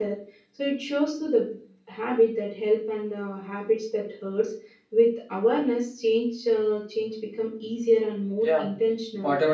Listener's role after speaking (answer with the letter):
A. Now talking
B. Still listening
A